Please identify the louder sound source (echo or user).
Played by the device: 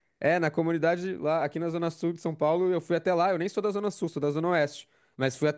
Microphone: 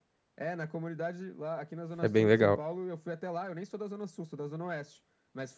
user